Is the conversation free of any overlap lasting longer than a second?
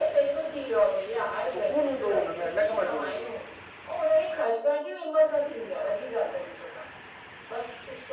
No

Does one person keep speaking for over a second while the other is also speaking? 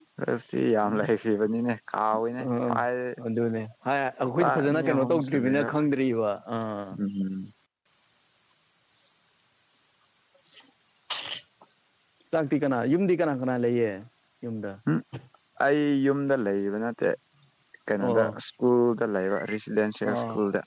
Yes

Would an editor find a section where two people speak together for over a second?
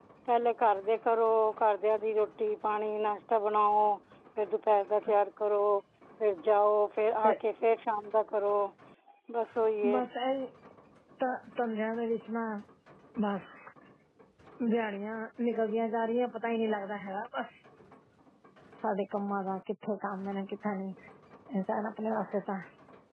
No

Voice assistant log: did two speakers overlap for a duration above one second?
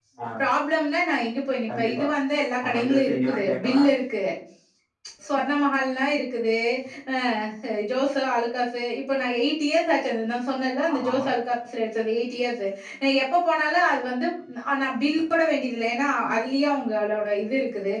Yes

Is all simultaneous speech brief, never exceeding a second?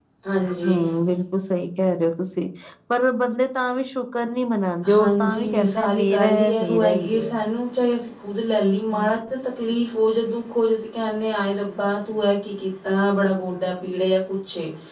No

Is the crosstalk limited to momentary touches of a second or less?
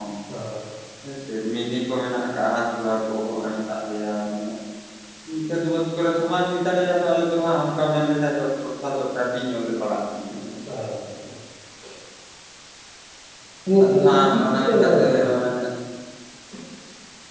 No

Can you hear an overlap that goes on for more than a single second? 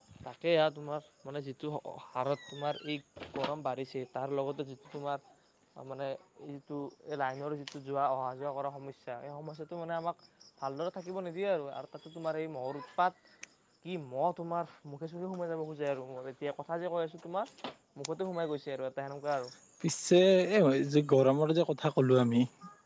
No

